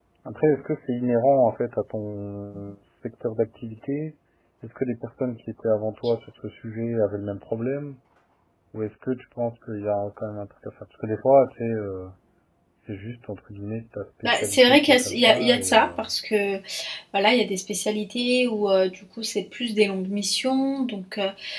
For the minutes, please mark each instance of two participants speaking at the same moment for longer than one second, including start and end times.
14.2-15.8

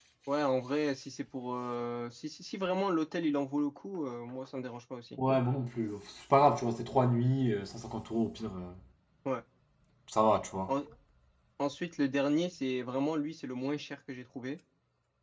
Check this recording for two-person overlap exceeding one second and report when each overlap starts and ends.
none

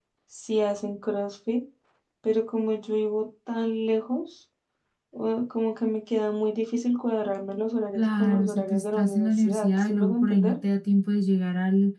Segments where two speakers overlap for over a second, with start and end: 8.0-10.6

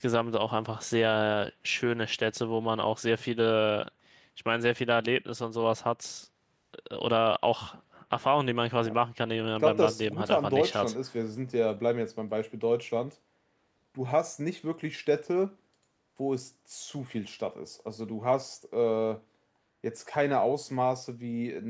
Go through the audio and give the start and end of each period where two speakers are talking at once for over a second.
9.6-10.9

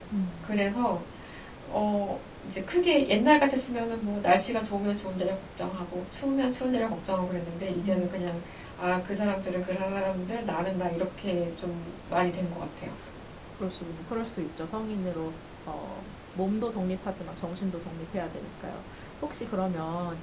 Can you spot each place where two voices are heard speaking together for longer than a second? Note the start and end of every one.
none

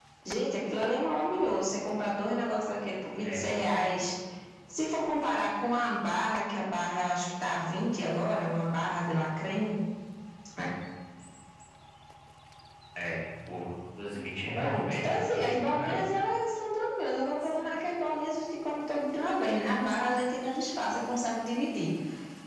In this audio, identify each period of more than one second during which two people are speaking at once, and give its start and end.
14.6-16.0

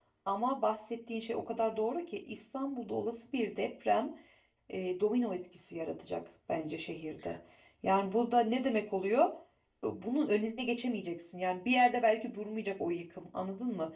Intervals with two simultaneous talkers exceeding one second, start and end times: none

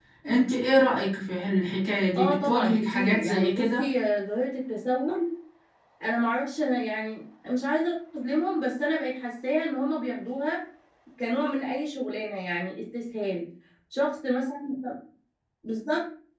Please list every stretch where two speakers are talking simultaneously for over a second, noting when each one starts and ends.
2.2-3.9

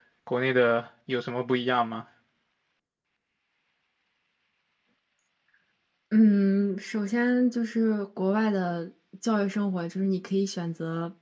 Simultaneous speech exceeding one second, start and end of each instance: none

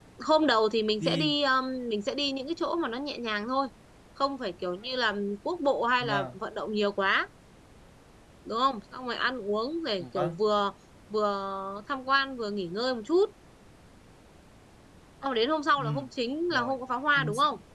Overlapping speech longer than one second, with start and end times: none

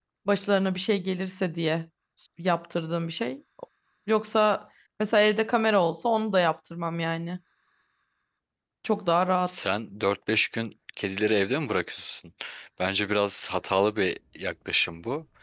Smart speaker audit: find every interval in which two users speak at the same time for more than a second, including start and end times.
none

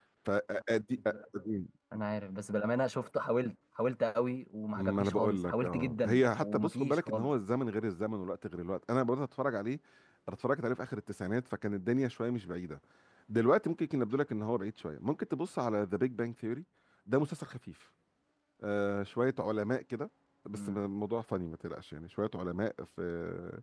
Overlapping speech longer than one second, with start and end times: 4.8-7.3

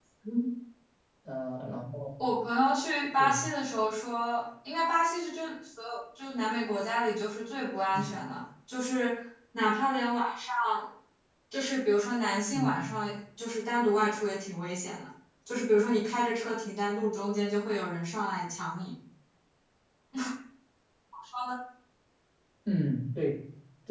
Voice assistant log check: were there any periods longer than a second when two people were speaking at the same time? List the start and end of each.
none

